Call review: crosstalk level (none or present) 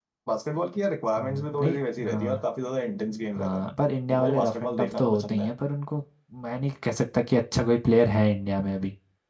present